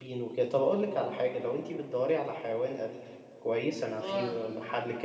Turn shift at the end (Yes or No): No